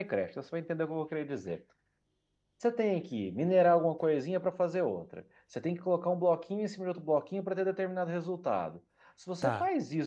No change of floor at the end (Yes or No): Yes